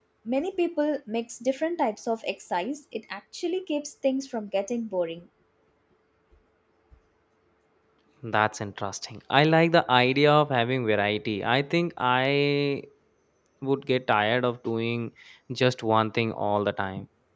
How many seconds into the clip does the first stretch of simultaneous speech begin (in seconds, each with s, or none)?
none